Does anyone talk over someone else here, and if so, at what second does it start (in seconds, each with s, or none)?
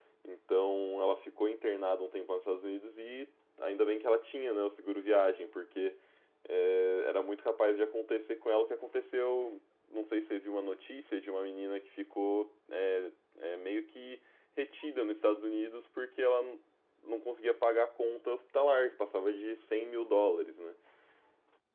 none